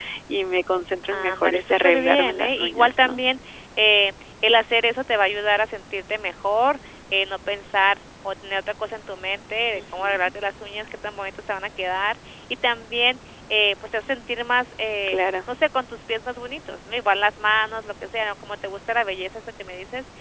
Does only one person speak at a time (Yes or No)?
No